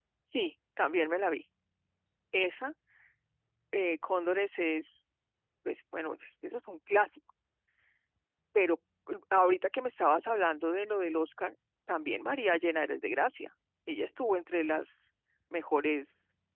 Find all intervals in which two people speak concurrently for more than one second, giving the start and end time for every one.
none

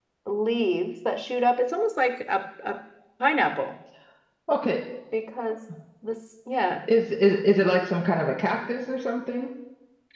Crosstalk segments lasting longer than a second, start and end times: none

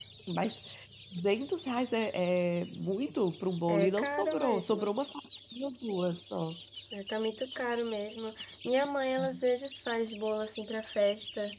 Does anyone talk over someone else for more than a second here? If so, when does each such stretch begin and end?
3.7-4.9

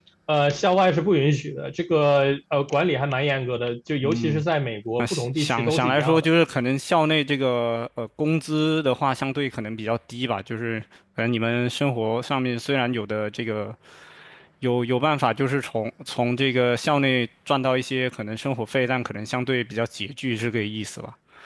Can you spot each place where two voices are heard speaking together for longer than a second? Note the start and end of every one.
5.0-6.2

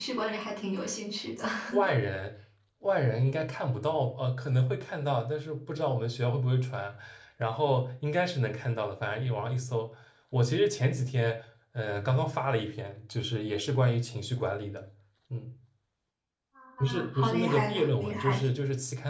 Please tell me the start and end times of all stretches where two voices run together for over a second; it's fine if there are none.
16.8-18.4

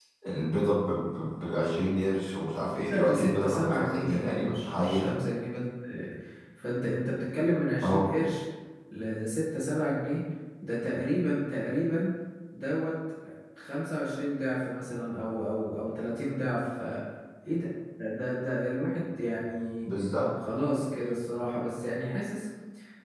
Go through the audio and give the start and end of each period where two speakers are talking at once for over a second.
2.9-5.1

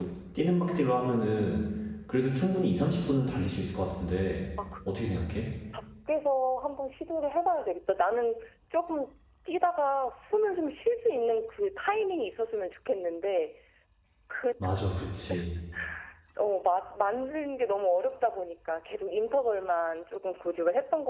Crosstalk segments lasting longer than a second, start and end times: none

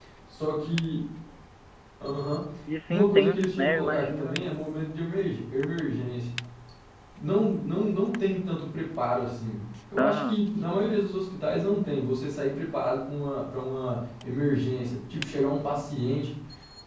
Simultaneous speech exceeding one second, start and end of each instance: 2.9-4.4

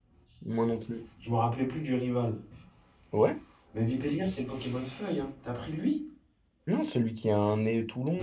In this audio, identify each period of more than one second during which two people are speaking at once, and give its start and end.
none

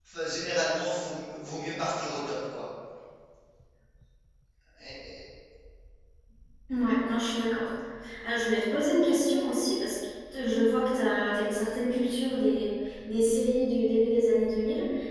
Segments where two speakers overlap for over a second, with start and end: none

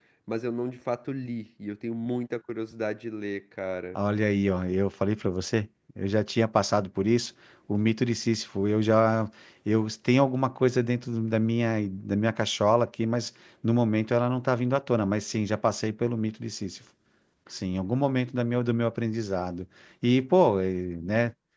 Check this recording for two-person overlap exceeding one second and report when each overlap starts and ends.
none

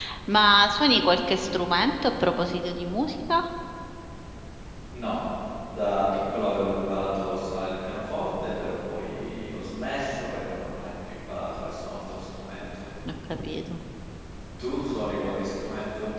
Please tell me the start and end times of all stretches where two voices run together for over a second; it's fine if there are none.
none

